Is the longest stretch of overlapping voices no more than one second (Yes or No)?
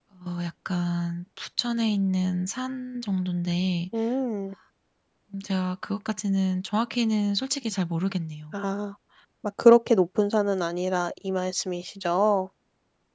Yes